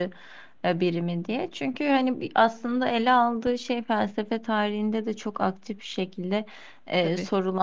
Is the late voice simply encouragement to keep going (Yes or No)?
Yes